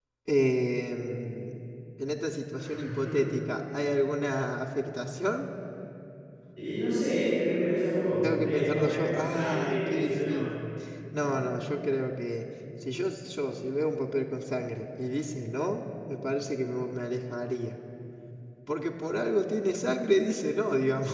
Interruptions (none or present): present